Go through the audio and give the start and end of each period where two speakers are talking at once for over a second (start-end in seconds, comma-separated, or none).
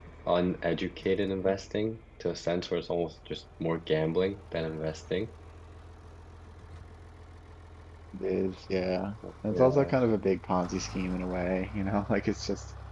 none